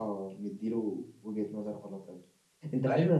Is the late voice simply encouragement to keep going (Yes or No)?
Yes